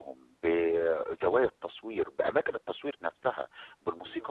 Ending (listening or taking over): taking over